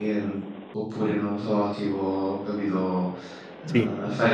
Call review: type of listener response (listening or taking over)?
listening